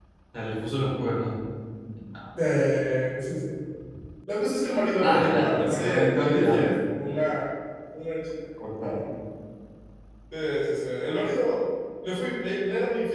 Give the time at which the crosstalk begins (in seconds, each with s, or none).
5.0 s